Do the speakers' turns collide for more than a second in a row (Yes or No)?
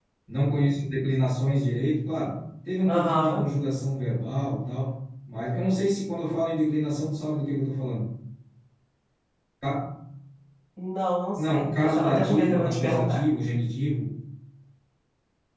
Yes